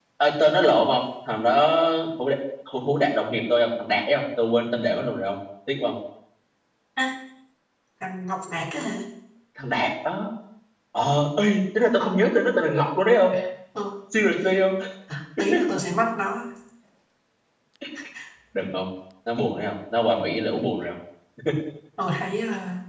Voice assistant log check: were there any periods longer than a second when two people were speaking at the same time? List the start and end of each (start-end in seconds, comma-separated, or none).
none